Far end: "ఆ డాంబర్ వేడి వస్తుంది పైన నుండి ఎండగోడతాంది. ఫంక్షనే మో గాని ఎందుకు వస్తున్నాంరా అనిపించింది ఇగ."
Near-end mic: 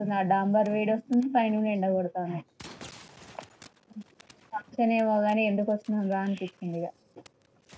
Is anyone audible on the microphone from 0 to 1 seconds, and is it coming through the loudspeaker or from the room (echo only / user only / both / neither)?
echo only